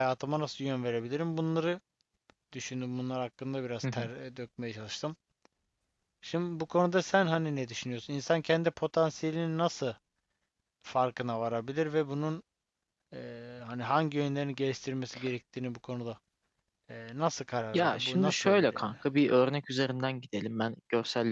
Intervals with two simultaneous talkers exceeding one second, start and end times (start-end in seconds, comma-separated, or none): 17.7-18.9